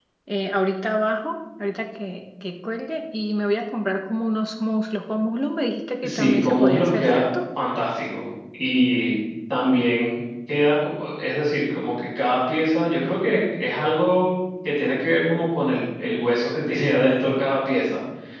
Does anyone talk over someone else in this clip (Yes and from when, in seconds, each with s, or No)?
Yes, from 6.0 s